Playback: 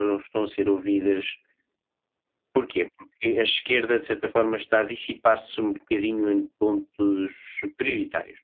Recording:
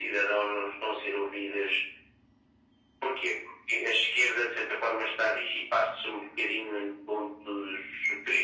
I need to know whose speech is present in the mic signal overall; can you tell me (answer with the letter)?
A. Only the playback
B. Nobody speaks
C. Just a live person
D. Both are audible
A